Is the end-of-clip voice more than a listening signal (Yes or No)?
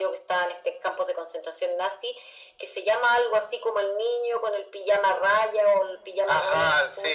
Yes